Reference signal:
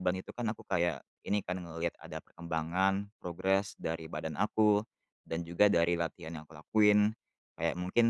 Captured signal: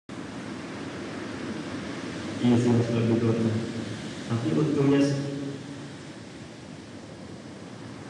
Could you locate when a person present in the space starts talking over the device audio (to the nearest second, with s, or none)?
2 s